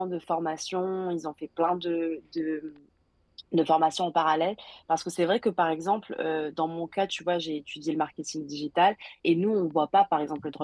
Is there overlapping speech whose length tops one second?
No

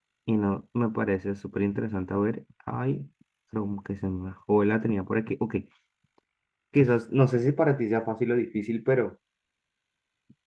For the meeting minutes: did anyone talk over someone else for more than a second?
No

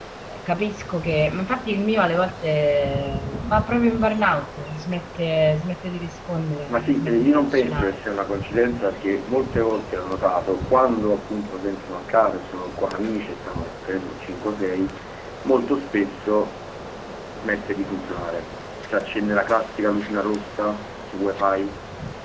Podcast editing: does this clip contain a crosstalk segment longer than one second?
Yes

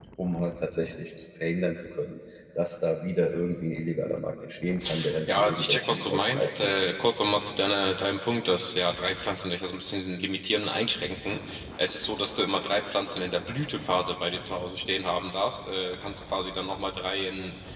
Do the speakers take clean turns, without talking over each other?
No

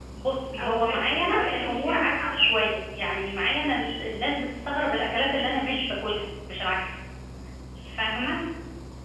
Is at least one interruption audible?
Yes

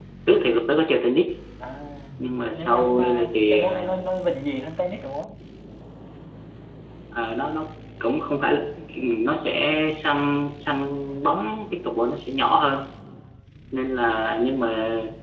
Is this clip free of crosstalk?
No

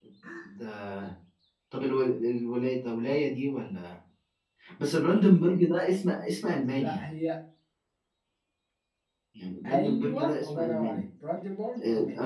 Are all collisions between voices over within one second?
No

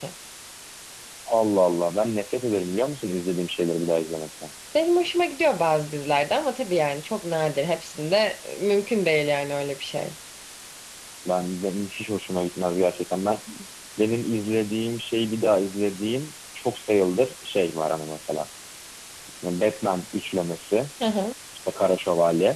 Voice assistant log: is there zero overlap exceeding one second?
Yes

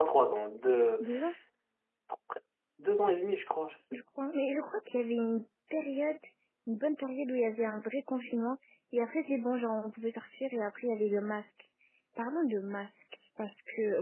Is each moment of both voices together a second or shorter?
Yes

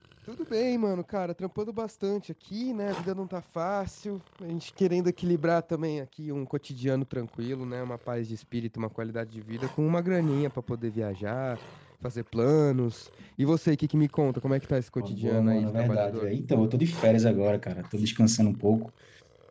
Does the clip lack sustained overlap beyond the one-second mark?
No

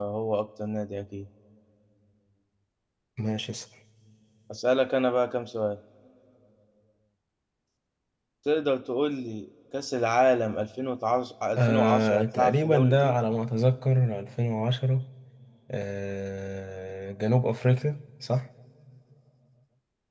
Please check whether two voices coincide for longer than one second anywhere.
Yes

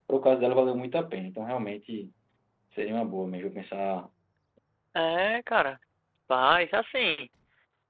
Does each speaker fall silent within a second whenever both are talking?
Yes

